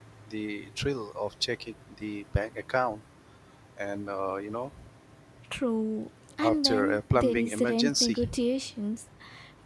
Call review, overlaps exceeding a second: present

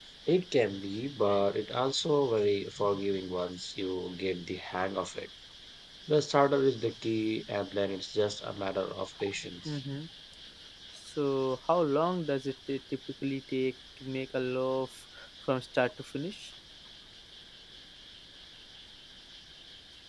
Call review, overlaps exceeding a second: none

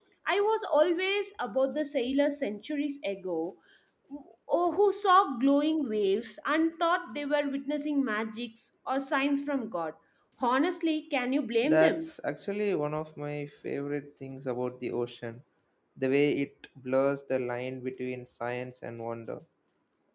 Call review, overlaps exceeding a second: none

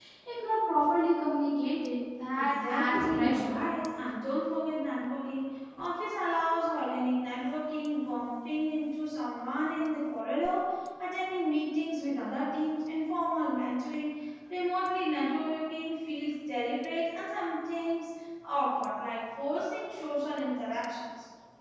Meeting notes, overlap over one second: present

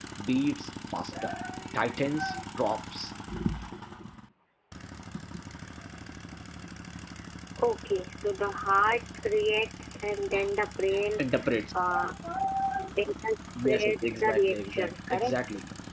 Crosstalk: present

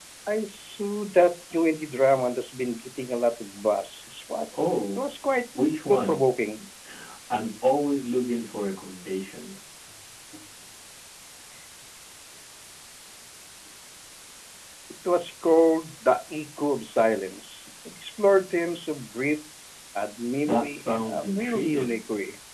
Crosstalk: present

